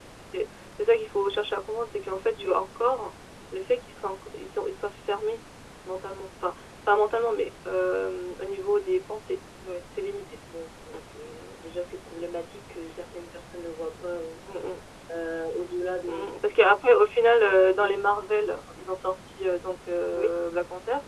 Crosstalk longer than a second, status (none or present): none